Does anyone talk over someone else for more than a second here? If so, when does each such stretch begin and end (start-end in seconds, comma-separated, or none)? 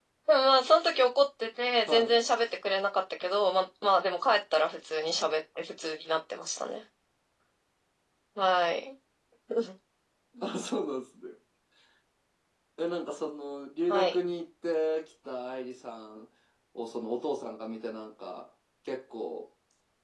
none